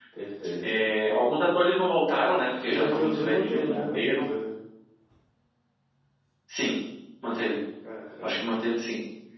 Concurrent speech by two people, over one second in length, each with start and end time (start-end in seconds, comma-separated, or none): 2.7-4.3